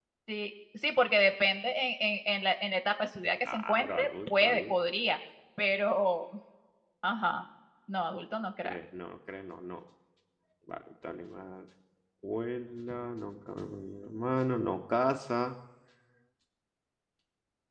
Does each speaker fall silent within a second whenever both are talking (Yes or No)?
No